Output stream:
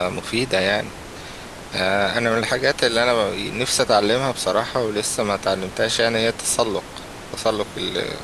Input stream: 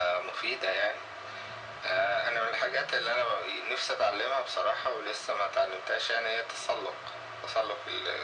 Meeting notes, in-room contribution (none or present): none